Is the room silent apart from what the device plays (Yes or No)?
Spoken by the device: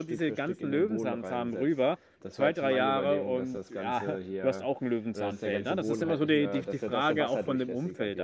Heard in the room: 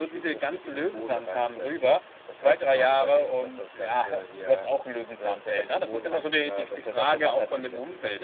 Yes